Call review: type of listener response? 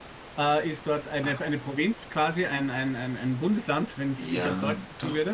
taking over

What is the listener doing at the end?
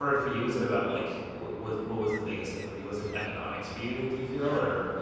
taking over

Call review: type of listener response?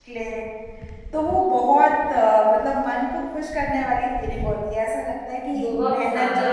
taking over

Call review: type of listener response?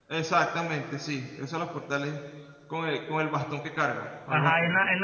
taking over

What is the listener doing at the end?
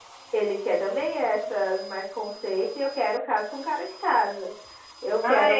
taking over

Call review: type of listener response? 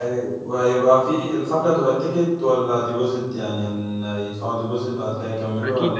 taking over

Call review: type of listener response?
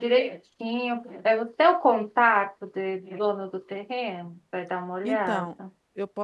taking over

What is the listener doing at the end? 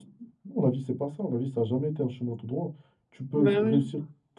listening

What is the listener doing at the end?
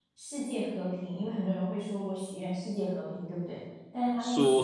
taking over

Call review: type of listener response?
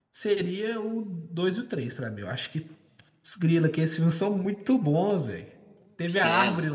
listening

